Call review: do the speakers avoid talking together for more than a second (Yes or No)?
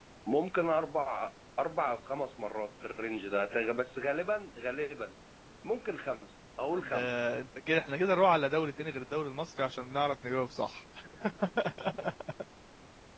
Yes